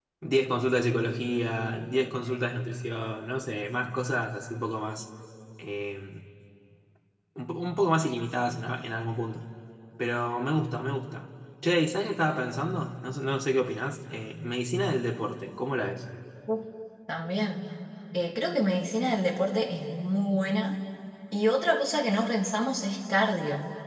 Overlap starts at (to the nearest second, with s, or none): none